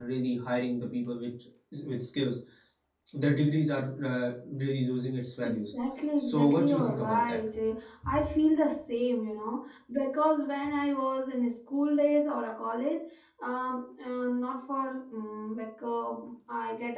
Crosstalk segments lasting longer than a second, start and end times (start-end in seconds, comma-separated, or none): 6.2-7.4